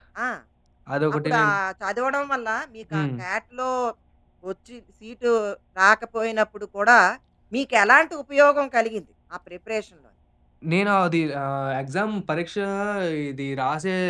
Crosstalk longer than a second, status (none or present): none